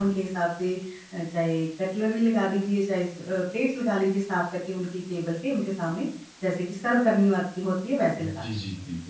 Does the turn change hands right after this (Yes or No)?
Yes